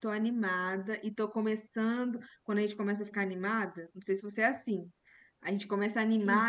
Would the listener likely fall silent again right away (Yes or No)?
Yes